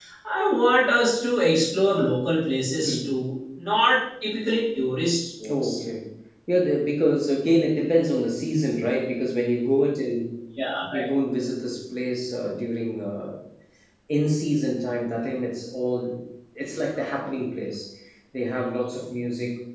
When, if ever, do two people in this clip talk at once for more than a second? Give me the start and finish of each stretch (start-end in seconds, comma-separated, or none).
none